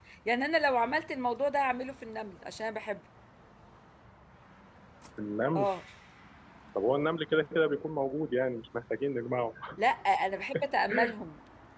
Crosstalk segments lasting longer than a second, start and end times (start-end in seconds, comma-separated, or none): none